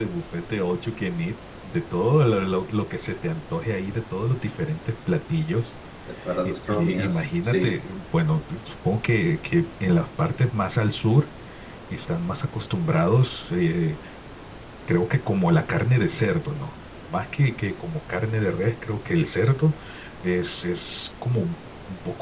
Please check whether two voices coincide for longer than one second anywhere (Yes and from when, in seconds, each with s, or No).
Yes, from 6.5 s